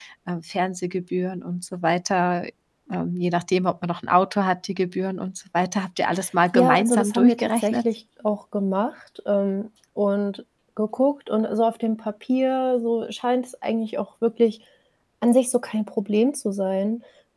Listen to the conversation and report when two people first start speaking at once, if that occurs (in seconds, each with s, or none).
6.5 s